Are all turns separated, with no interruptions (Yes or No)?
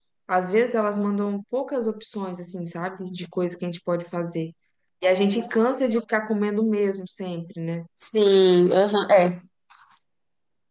Yes